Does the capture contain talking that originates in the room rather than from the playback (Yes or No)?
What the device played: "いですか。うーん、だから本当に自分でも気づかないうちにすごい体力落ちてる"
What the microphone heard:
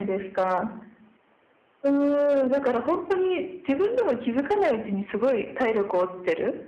No